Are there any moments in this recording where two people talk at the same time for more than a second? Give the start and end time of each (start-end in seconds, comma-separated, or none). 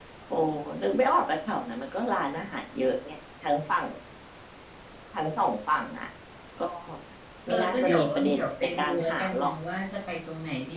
7.5-9.5